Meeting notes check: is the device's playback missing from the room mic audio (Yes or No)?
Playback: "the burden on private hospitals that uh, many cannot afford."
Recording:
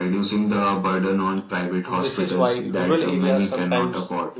No